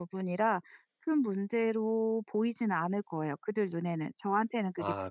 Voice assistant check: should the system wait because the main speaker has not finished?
No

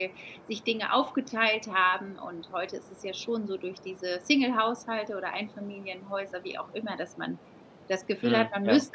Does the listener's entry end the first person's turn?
No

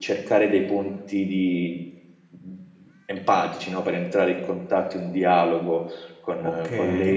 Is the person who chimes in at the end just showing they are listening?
No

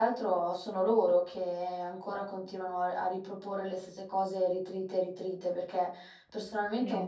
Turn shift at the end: No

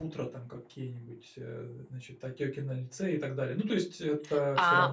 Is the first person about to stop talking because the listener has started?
Yes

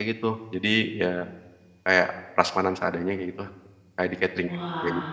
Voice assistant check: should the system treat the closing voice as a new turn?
Yes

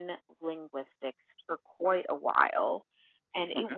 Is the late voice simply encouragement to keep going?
Yes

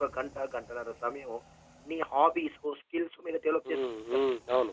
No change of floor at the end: No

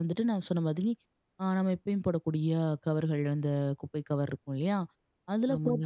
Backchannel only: Yes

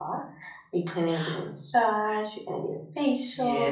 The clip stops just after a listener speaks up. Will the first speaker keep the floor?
No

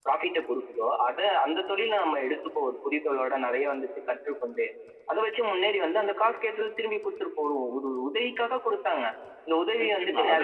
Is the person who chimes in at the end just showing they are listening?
No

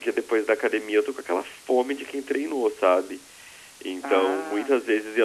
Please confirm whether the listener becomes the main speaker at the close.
No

